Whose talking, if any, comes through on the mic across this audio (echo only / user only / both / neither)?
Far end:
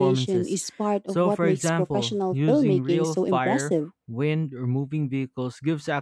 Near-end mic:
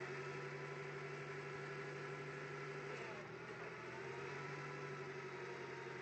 neither